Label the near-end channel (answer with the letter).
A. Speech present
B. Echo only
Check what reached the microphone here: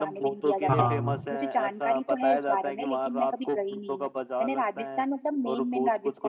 A